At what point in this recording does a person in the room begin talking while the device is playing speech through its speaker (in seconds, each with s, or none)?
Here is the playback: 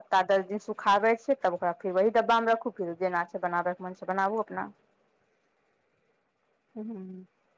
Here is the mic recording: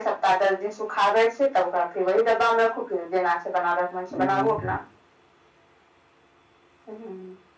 4.1 s